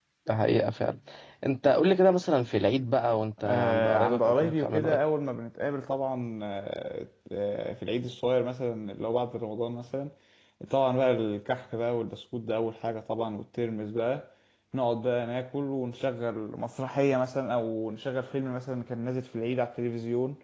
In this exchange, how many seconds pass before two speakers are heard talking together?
3.4 s

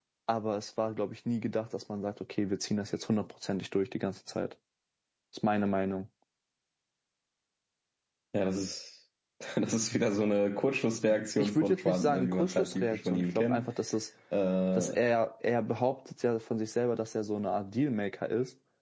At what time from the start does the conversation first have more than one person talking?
11.4 s

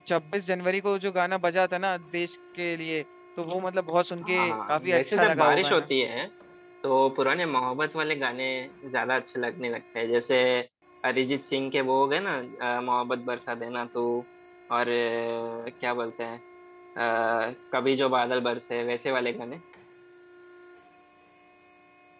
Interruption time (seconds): 4.2 s

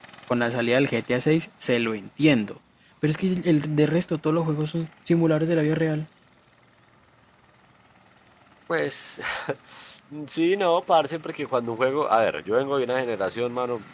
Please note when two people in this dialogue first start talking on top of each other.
none

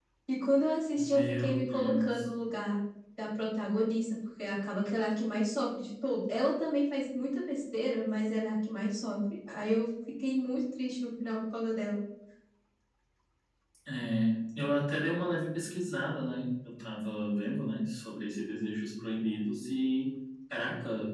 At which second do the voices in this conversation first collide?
0.9 s

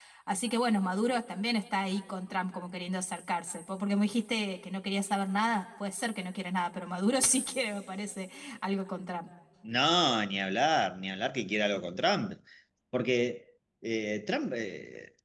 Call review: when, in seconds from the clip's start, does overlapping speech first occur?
none

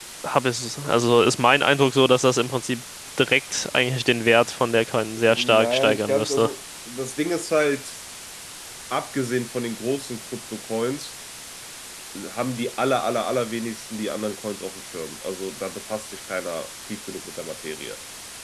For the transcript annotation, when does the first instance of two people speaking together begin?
5.3 s

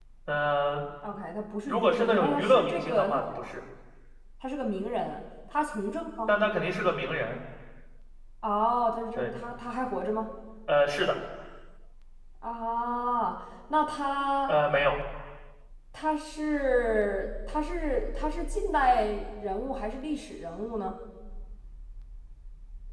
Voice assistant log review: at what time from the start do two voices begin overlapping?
1.7 s

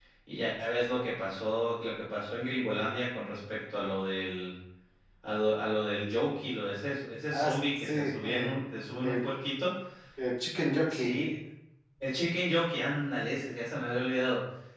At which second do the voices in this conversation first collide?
7.3 s

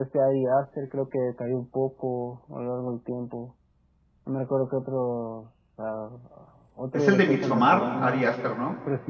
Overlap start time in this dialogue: 7.0 s

